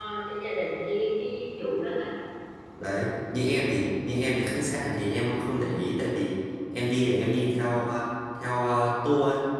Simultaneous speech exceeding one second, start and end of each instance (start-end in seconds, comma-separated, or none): none